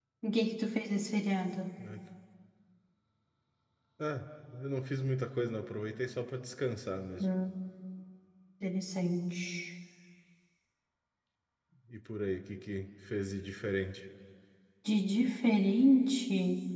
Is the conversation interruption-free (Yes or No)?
Yes